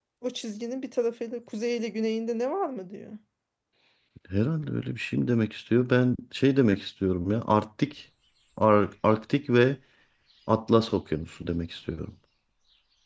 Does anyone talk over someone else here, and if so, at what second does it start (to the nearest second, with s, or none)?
none